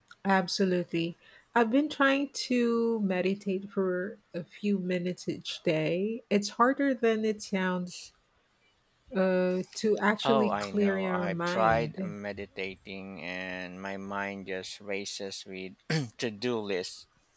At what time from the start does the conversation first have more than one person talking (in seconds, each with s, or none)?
10.2 s